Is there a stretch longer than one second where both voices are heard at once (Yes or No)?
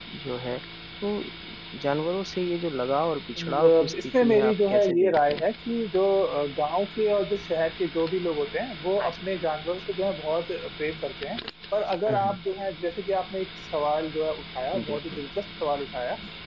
Yes